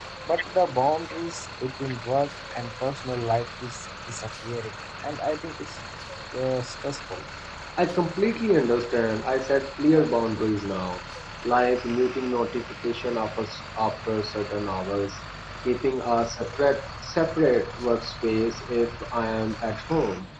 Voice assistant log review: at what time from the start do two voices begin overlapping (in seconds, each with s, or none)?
none